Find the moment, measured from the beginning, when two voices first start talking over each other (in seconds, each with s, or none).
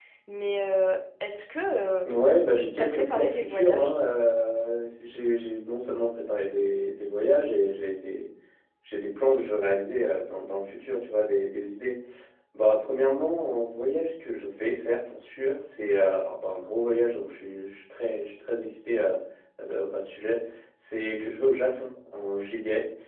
2.8 s